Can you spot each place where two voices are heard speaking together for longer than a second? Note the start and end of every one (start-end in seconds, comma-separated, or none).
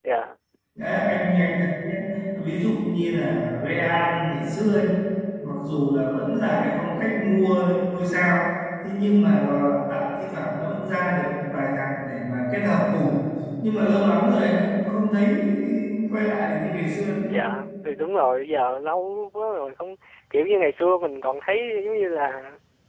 none